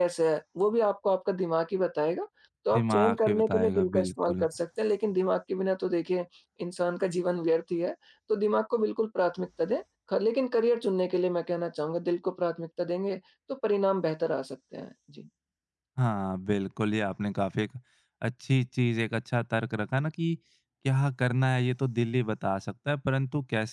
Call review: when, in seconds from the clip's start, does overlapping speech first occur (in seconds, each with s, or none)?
2.7 s